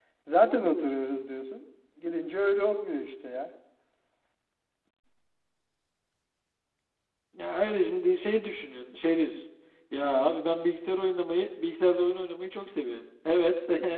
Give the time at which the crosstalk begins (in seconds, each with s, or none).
none